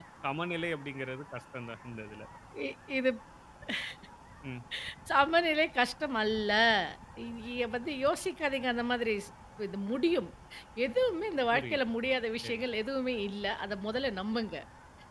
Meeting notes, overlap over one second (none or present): none